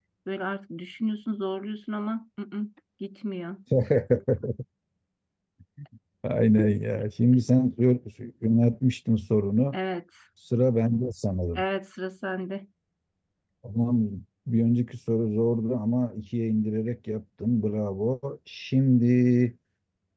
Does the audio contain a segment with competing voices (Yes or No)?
No